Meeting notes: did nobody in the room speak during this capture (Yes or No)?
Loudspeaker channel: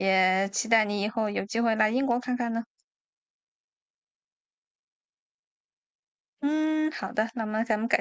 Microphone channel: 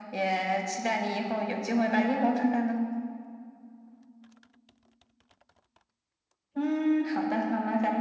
Yes